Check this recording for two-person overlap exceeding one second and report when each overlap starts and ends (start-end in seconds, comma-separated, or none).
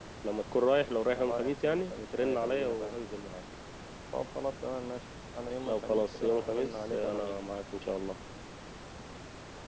1.1-3.0, 5.7-7.4